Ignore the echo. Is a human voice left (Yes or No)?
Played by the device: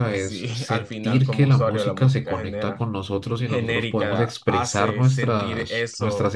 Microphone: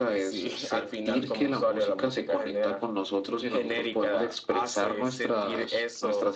No